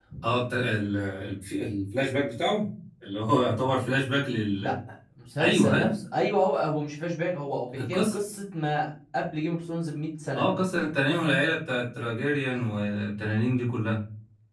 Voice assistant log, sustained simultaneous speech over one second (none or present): none